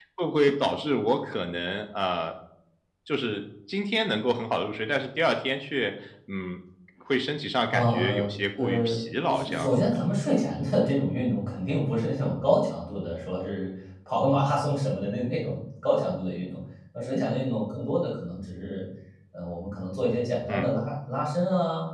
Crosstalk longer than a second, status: present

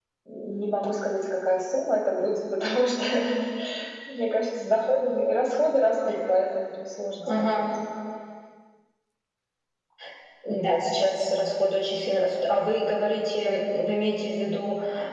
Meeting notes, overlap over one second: none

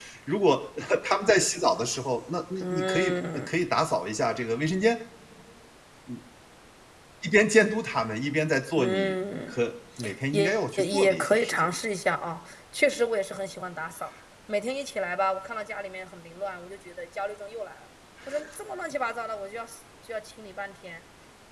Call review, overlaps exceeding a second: present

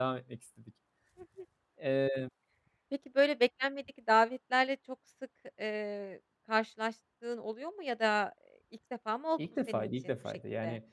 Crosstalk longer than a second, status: present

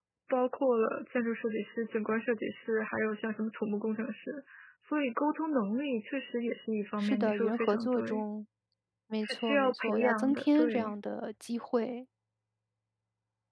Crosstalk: present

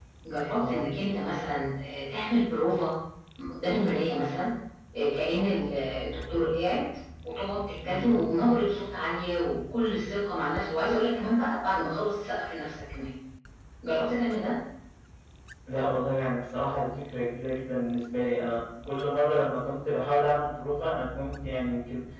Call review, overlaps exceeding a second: none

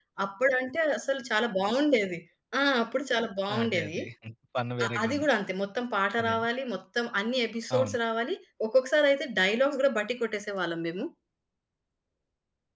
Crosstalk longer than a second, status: none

